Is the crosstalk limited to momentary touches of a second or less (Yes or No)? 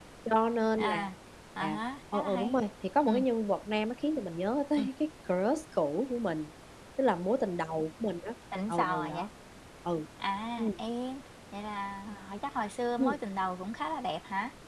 Yes